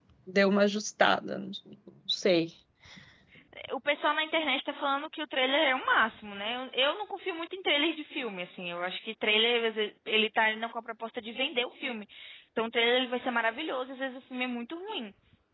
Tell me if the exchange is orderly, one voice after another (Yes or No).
Yes